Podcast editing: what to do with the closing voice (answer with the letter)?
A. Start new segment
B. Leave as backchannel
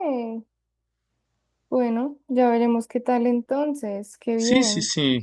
A